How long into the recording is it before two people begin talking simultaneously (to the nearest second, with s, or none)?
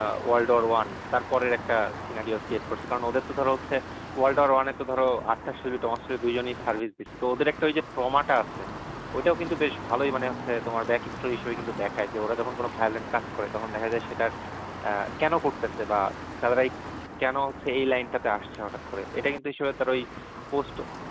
none